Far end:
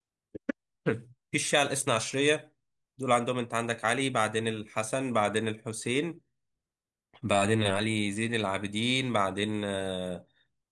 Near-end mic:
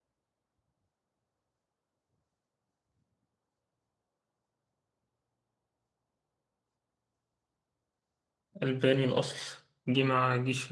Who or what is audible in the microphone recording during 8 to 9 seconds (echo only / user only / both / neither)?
user only